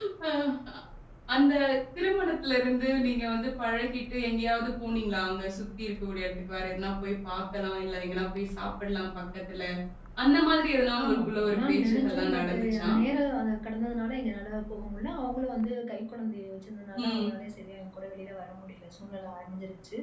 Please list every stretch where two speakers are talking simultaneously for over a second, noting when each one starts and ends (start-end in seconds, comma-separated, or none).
11.0-12.9